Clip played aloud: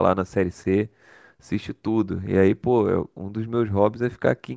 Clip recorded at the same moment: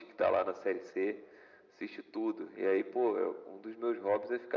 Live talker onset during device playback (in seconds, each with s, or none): none